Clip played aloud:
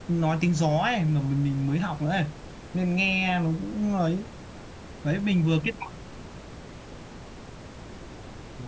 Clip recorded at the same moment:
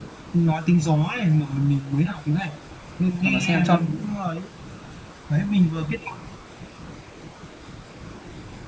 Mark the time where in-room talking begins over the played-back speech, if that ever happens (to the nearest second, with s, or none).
3 s